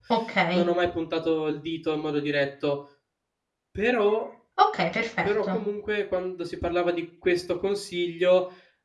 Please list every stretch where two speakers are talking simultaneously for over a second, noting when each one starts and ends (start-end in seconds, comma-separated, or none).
none